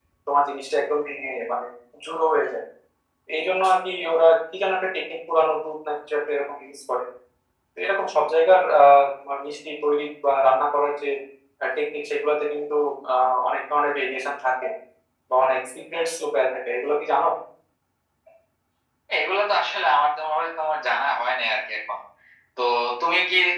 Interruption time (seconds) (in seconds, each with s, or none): none